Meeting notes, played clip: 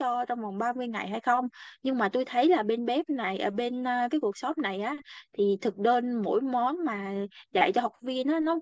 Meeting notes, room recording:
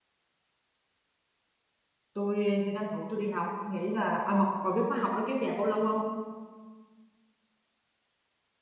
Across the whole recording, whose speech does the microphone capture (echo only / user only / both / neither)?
user only